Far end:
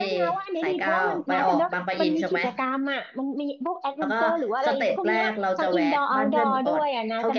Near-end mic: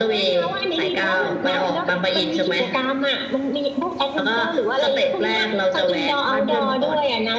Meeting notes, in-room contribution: none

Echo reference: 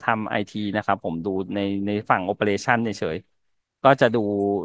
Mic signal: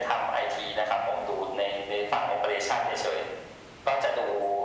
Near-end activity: none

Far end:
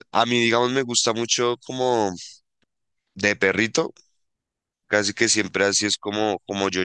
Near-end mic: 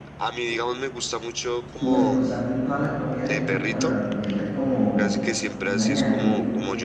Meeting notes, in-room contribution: present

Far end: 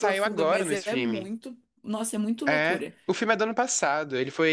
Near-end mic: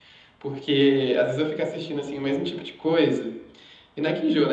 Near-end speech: present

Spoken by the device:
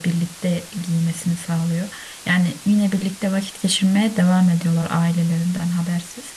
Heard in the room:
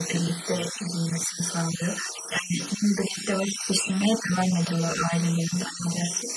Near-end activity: none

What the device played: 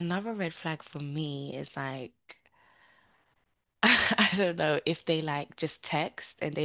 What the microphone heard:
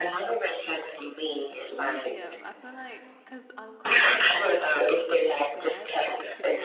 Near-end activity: present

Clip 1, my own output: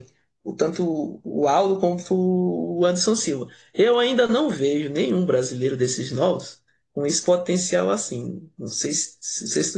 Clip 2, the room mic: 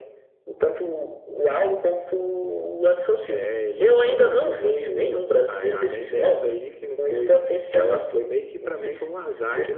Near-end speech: present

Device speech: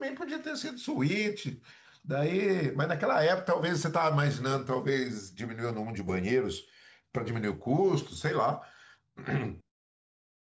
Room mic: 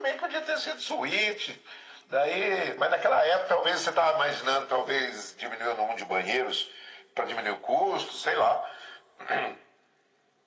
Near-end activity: none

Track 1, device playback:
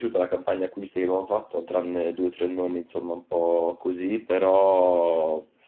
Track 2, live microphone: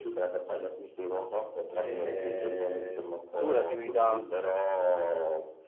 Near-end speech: present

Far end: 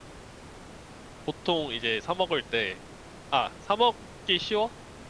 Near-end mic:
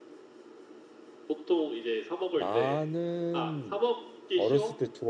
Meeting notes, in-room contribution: present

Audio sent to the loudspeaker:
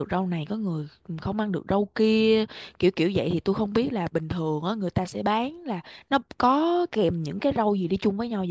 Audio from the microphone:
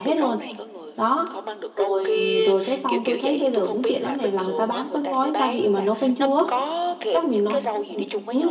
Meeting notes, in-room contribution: present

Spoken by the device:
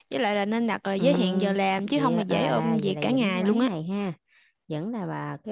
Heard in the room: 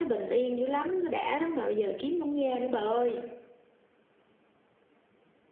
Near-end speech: present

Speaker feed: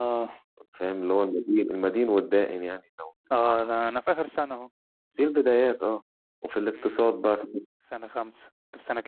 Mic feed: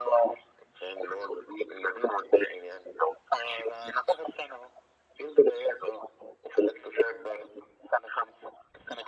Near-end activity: none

